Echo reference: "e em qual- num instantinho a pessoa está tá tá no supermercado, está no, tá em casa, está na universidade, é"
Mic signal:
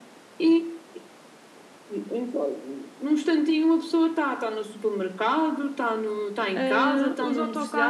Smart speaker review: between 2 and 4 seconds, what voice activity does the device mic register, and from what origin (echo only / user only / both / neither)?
echo only